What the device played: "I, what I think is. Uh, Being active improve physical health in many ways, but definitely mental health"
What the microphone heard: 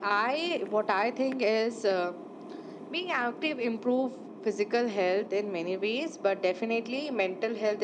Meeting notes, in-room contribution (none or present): none